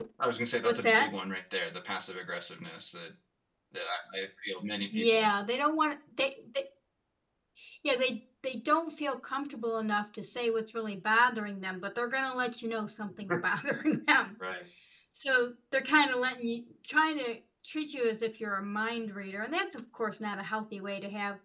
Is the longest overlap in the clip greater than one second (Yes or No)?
No